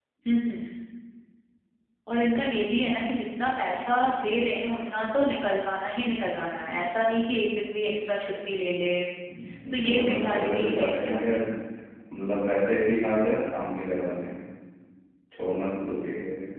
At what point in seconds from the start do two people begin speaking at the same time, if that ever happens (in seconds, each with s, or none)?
9.7 s